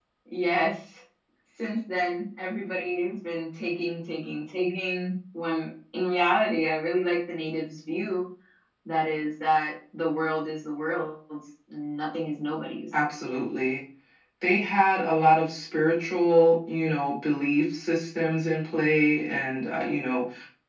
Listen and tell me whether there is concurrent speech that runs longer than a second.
No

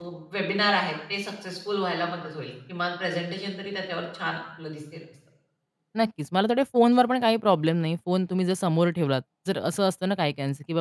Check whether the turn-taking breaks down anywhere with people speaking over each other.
No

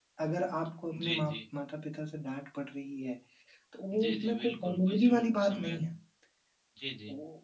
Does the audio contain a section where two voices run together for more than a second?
Yes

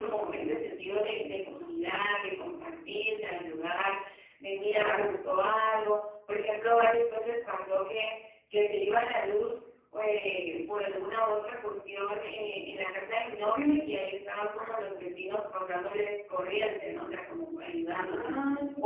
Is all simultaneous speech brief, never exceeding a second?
Yes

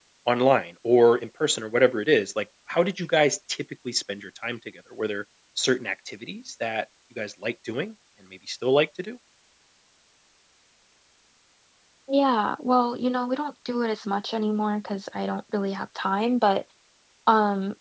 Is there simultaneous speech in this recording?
No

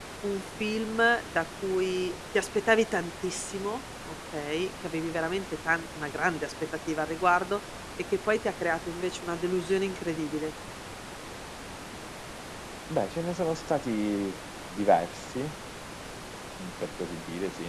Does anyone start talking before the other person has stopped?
No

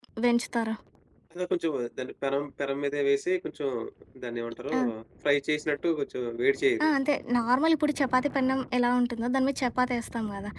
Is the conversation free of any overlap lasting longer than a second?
Yes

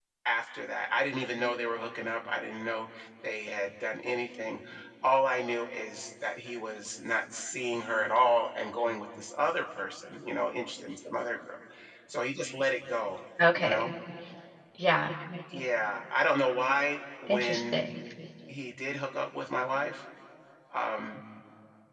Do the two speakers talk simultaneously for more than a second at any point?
No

